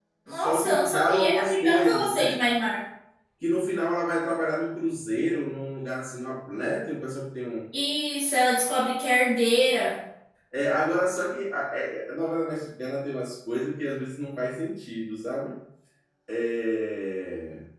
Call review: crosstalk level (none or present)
present